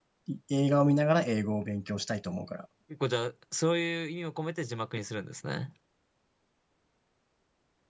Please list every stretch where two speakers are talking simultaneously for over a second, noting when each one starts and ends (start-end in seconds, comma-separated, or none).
none